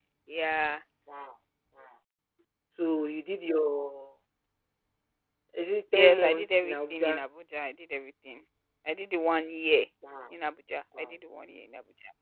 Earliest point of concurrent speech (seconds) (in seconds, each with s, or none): 6.0 s